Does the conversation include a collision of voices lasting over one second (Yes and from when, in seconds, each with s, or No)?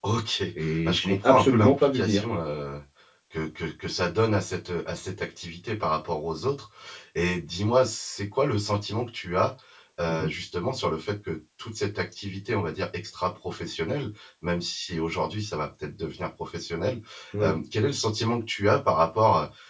Yes, from 0.8 s